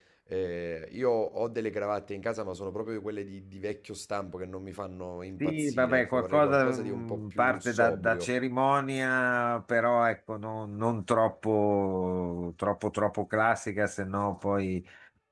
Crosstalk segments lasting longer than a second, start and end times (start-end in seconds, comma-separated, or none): 5.4-8.3